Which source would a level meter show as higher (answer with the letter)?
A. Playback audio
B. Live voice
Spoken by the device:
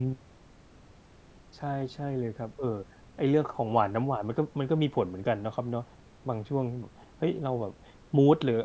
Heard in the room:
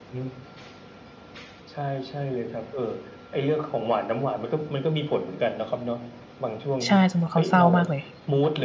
B